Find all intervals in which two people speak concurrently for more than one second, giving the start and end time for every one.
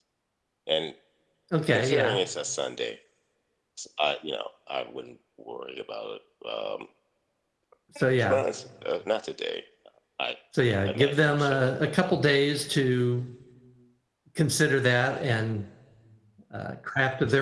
10.8-12.1

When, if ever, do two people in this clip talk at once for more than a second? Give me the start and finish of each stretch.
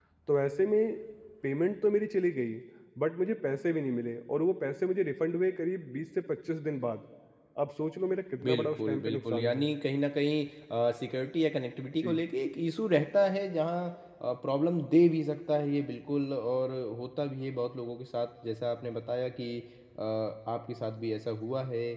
8.4-9.7

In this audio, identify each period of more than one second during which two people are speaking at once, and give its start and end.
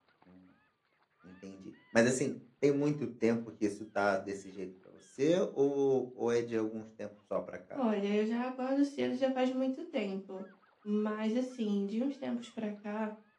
none

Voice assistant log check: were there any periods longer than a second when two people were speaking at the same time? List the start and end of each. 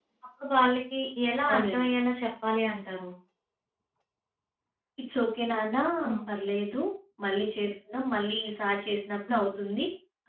none

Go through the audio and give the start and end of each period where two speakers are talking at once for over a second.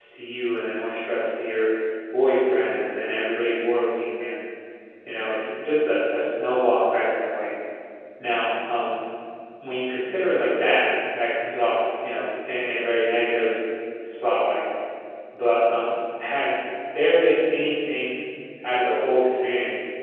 none

